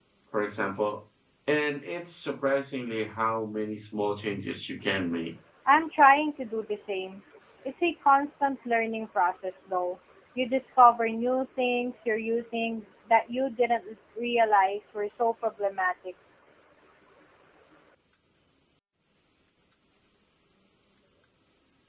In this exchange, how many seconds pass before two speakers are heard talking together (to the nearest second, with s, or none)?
none